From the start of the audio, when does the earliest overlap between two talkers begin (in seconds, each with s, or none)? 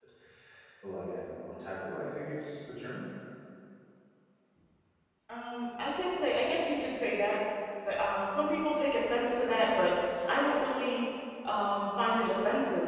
none